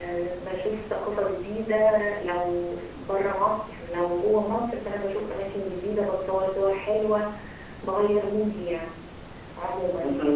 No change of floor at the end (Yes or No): Yes